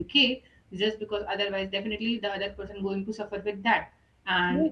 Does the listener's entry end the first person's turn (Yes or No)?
No